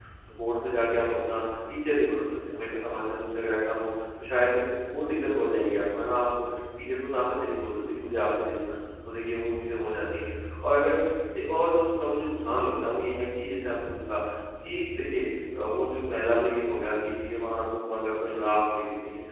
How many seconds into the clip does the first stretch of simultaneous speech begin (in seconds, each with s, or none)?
none